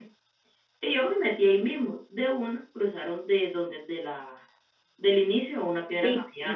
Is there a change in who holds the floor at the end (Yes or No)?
Yes